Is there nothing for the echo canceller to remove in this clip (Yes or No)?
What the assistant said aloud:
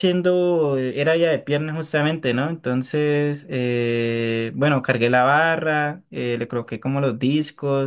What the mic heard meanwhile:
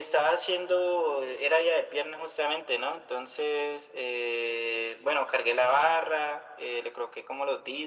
No